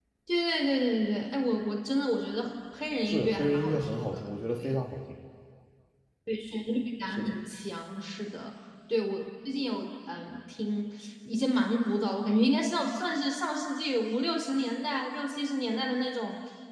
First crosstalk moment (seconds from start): 3.0 s

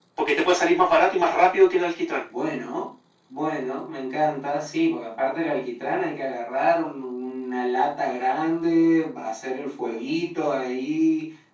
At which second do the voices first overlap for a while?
none

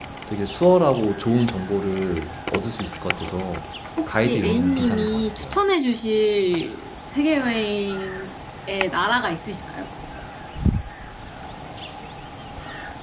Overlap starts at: 4.0 s

